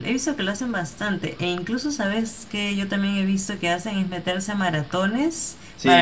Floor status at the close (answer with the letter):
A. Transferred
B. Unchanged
A